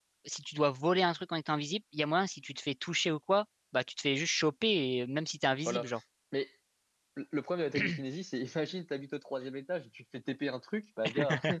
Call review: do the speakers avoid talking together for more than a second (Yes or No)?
Yes